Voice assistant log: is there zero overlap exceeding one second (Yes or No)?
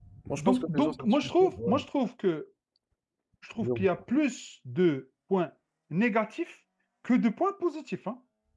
No